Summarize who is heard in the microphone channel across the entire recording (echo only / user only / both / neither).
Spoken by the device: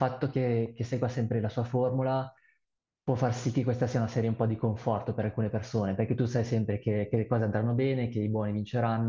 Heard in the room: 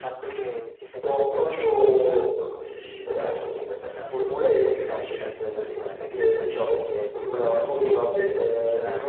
both